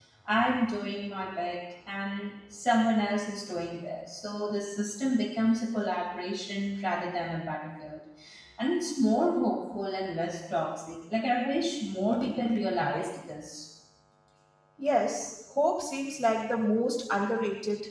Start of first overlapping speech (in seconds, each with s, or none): none